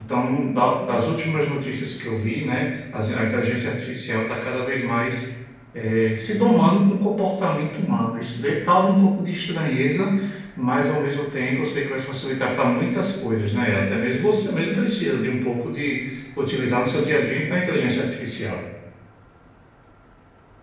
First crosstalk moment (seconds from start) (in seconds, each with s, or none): none